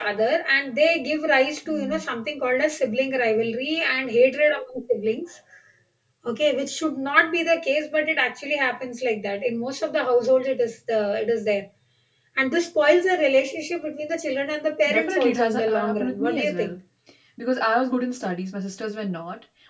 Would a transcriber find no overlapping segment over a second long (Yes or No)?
No